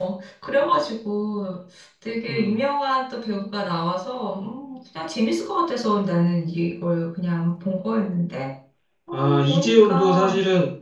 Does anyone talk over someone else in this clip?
Yes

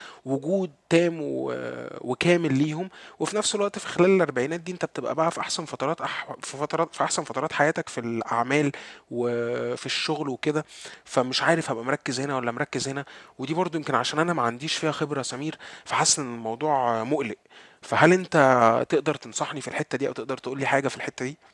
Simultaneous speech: No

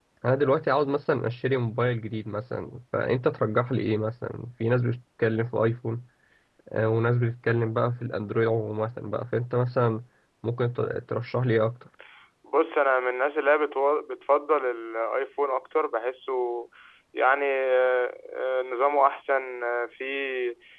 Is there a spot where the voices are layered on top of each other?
No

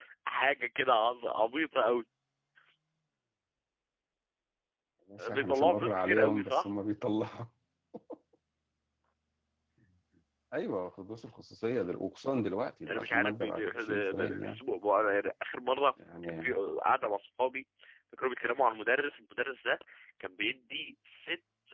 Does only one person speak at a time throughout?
No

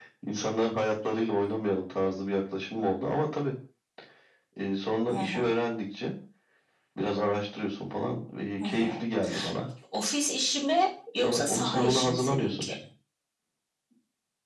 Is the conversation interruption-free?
No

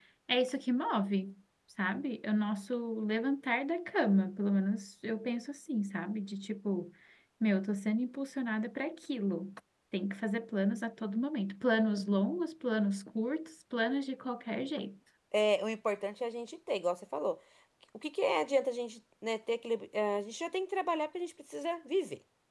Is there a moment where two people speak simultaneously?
No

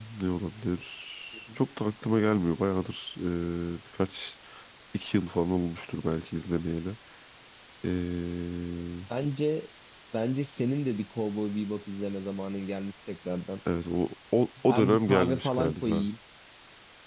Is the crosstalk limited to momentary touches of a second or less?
No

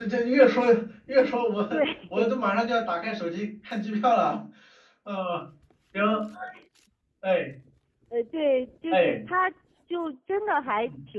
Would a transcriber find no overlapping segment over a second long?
Yes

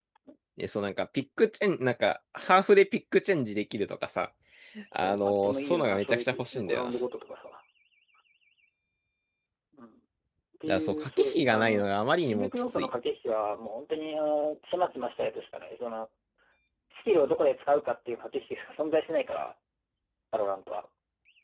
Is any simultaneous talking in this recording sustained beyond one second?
Yes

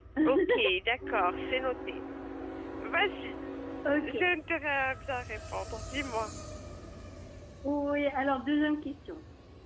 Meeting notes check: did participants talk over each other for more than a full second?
No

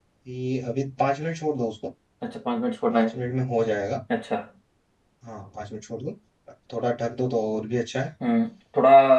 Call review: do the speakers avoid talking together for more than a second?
Yes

